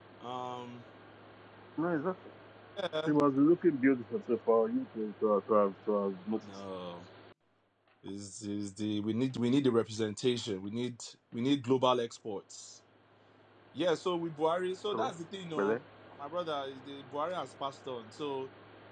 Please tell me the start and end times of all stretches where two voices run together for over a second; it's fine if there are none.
none

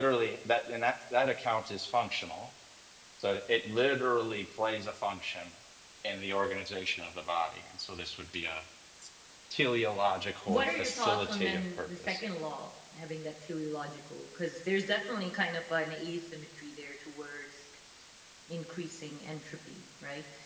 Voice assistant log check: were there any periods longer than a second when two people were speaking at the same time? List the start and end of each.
10.5-12.2

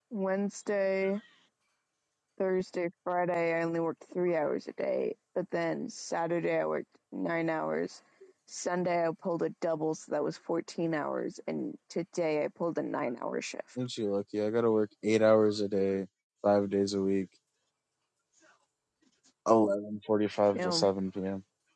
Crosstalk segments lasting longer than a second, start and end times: none

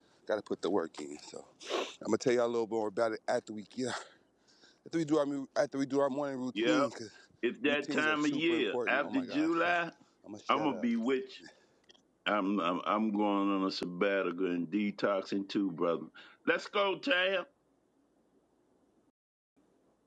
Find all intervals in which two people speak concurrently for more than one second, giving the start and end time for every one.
7.7-9.7

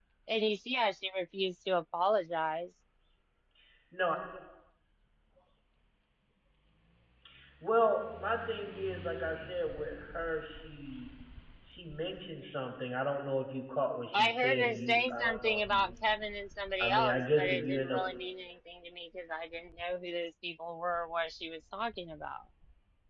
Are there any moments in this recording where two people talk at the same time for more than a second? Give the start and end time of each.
14.1-15.9, 16.8-18.0

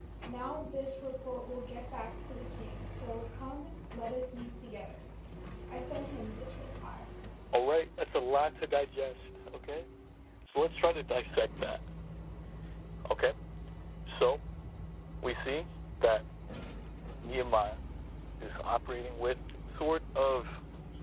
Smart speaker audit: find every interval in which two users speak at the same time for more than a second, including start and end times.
none

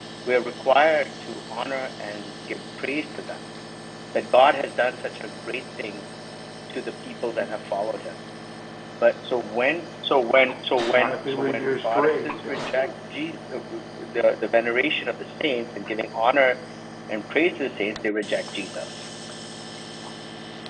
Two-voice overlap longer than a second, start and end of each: 10.9-12.6

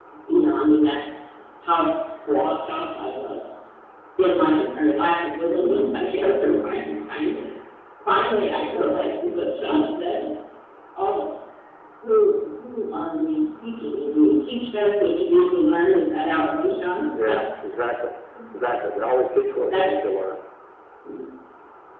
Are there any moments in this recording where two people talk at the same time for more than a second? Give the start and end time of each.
none

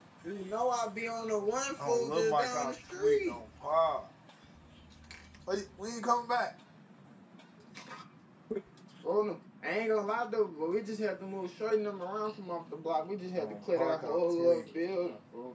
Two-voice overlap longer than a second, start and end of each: 1.9-3.4, 13.4-14.7

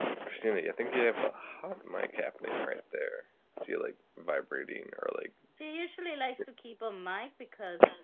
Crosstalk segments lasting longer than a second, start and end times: none

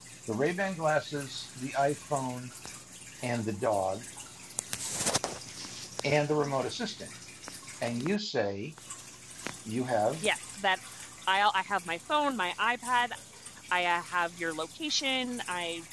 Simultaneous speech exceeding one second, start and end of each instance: none

